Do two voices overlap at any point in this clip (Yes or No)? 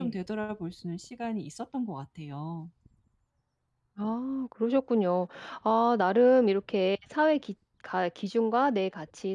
No